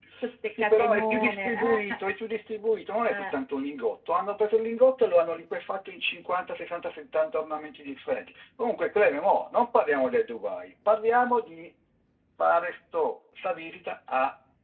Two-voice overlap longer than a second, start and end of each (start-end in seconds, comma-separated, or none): 0.5-1.8